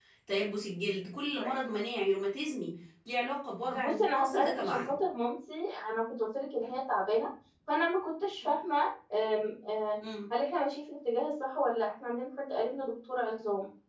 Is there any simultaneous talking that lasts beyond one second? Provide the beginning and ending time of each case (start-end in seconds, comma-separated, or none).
3.7-4.9